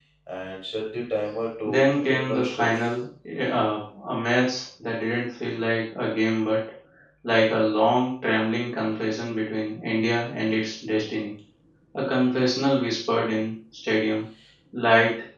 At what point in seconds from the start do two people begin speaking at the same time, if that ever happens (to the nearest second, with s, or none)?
2 s